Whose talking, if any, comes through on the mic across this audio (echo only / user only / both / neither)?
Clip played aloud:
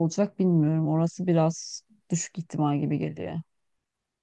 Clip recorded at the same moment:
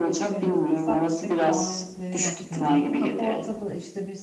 both